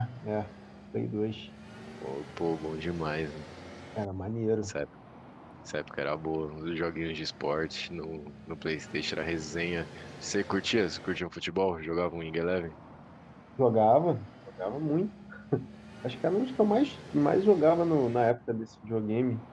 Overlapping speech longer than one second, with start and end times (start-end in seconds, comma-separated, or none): none